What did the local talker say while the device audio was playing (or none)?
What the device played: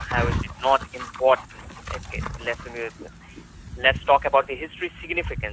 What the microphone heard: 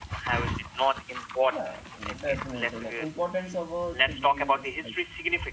yeah definitely like importance of a degree is like